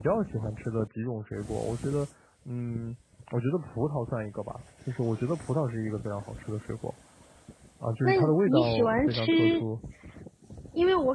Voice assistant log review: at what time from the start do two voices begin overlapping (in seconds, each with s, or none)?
8.0 s